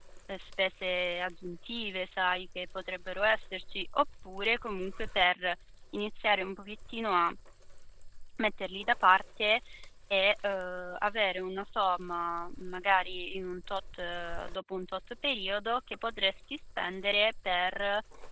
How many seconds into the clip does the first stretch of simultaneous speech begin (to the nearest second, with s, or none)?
none